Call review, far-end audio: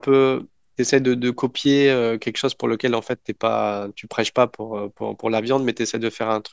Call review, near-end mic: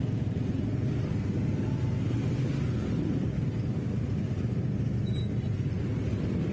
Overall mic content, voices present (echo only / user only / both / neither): neither